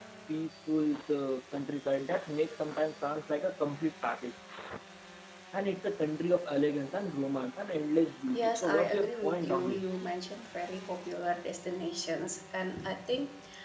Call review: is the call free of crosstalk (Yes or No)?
No